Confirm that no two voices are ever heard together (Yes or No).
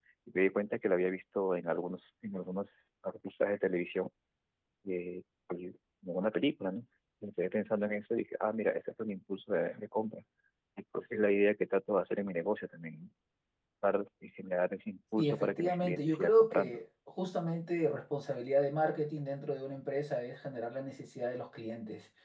No